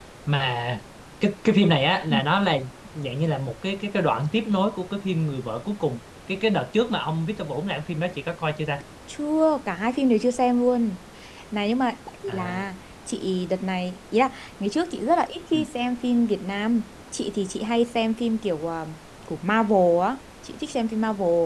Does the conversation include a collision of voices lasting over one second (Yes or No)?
No